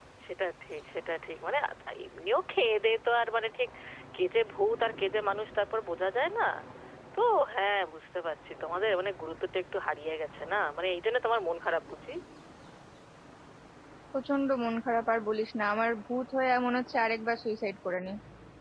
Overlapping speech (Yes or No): No